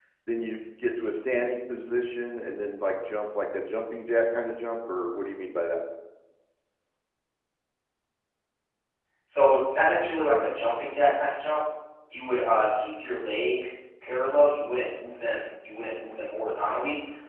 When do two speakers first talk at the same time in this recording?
none

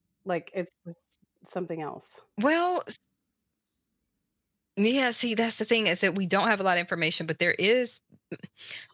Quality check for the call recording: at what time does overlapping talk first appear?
none

